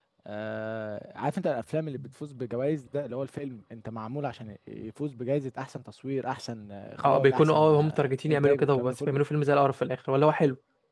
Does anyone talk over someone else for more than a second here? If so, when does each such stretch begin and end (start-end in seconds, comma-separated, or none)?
7.0-9.2